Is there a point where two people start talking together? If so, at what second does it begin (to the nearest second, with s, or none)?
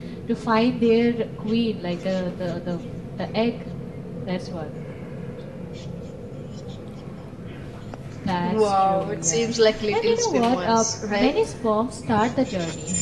8 s